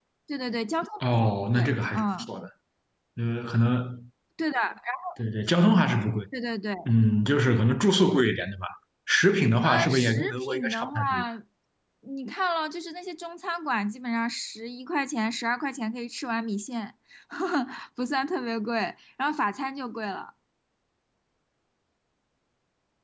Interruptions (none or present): present